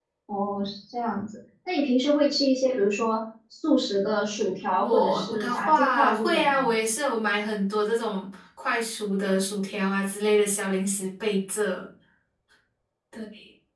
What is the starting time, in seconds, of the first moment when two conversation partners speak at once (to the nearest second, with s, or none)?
5 s